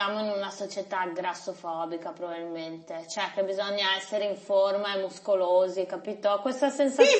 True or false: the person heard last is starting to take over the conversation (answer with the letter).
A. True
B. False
A